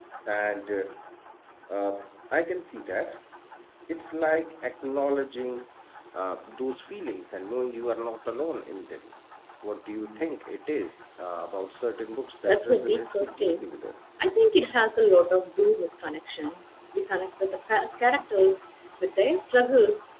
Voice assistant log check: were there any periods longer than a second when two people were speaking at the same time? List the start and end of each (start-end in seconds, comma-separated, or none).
12.4-13.7